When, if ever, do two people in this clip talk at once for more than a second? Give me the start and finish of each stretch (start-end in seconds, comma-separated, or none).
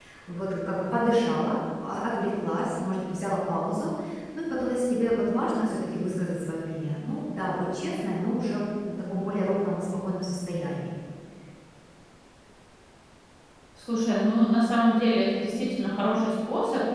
none